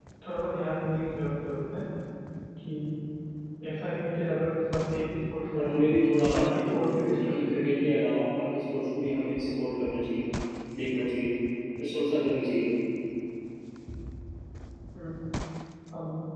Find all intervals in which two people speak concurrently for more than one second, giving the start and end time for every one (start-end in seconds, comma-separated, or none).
6.4-7.7